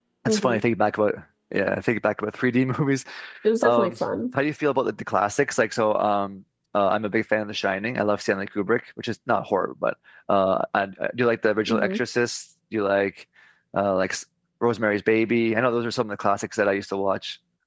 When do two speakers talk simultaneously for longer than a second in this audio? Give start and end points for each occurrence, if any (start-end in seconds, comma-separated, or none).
none